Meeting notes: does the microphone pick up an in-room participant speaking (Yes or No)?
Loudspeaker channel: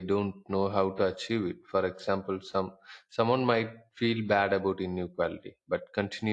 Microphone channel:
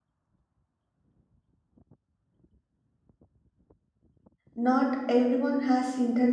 Yes